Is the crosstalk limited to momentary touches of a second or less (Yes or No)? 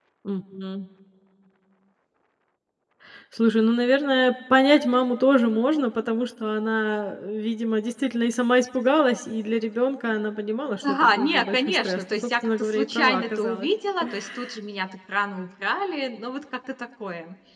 No